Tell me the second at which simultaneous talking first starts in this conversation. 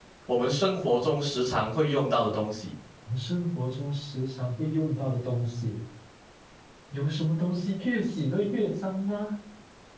none

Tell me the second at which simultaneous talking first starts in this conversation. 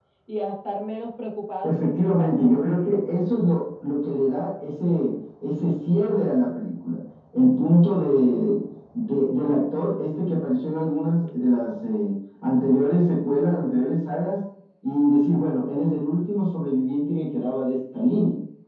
2 s

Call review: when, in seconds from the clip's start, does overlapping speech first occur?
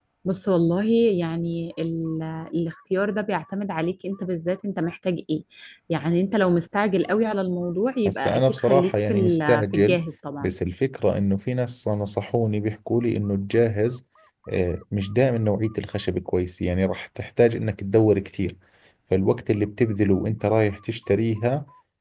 8 s

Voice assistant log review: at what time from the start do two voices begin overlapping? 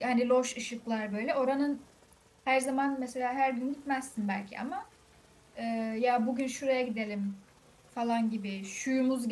none

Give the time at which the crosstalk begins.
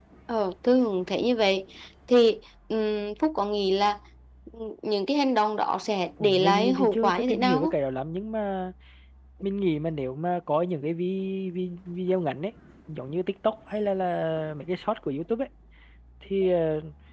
6 s

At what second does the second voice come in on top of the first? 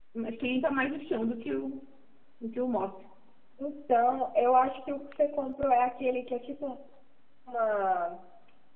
none

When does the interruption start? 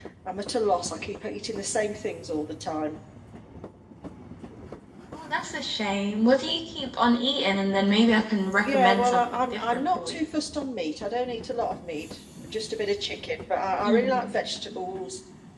9 s

